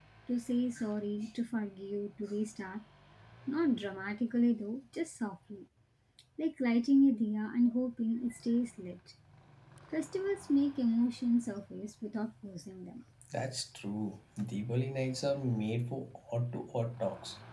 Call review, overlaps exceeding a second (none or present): none